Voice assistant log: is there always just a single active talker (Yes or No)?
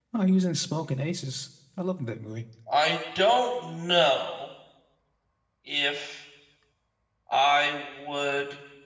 Yes